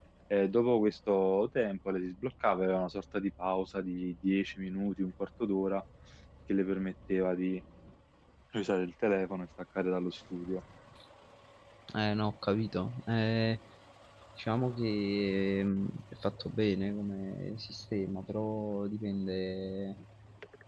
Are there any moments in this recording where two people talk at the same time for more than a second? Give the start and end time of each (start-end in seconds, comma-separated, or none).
none